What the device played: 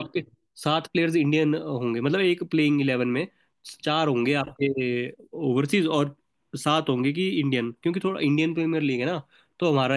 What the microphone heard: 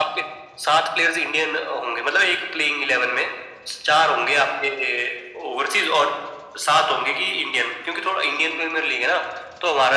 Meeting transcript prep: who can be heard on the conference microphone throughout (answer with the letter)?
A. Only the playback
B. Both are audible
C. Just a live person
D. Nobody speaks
A